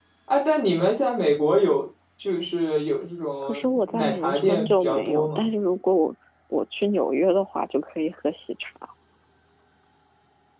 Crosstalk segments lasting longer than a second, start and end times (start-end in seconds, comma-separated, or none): 3.4-5.4